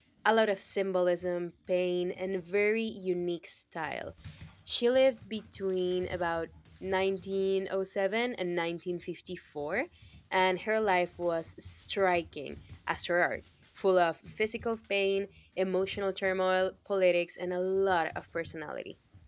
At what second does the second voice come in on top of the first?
none

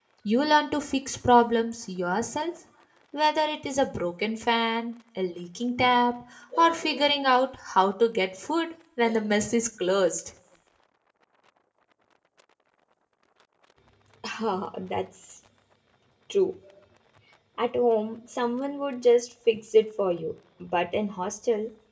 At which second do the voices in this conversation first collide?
none

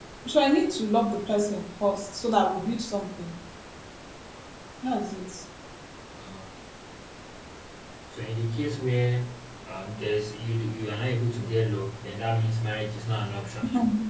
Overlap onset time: none

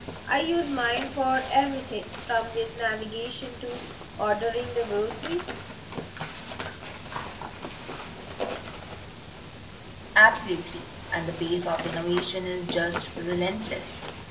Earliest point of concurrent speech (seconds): none

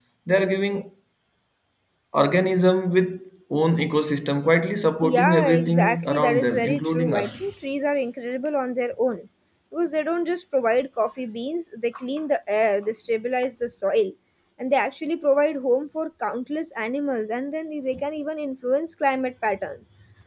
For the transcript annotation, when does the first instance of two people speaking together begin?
5.0 s

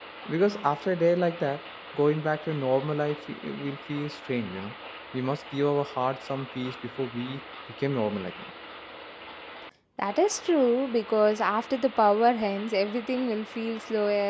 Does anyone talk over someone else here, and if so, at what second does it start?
none

